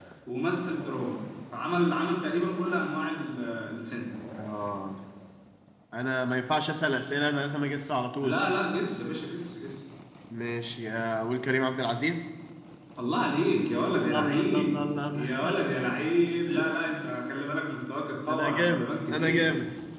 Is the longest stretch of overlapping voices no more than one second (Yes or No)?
No